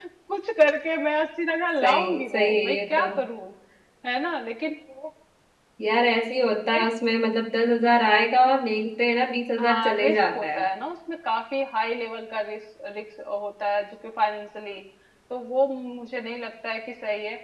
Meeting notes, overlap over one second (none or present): present